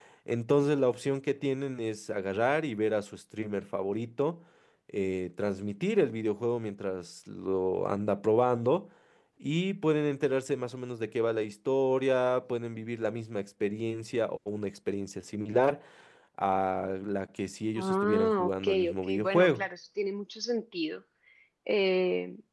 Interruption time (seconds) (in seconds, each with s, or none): 17.8 s